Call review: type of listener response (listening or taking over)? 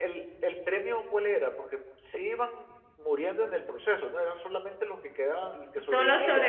taking over